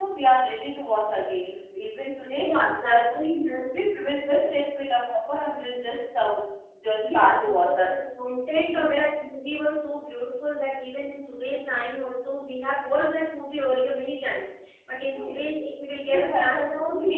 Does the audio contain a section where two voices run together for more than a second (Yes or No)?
Yes